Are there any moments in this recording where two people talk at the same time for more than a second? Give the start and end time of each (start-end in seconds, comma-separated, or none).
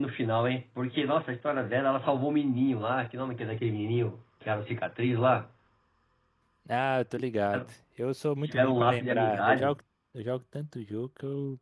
8.4-9.8